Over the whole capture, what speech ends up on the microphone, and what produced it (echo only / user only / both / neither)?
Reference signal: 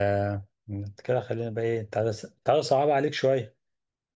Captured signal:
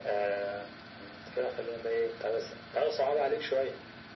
echo only